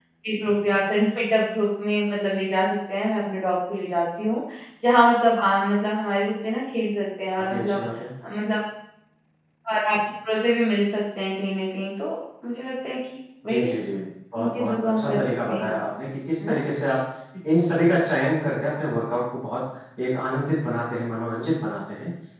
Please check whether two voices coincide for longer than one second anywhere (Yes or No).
Yes